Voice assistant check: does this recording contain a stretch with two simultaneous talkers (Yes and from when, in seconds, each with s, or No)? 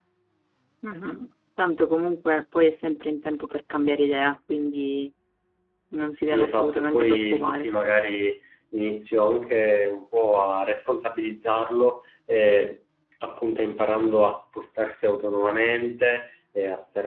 Yes, from 6.2 s